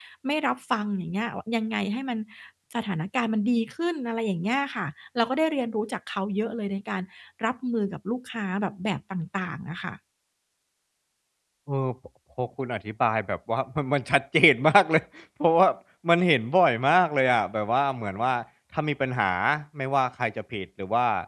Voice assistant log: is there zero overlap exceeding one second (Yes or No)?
Yes